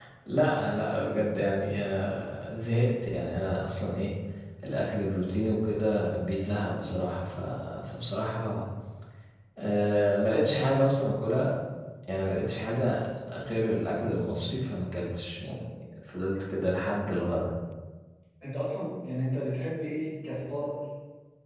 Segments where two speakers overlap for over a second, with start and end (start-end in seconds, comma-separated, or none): none